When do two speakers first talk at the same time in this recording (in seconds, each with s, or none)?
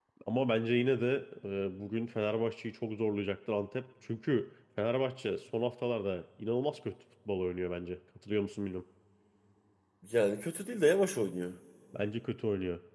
none